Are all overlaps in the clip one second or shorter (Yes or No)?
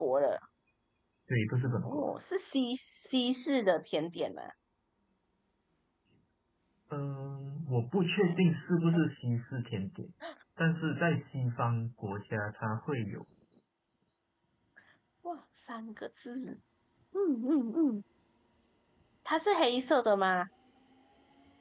Yes